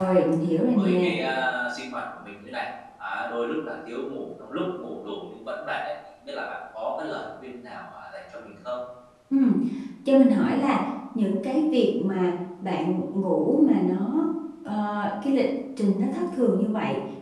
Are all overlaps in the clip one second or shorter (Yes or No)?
Yes